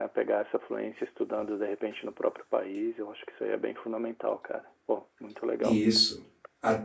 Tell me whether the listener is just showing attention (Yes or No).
No